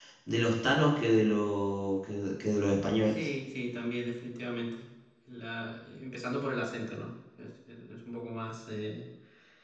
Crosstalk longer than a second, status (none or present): none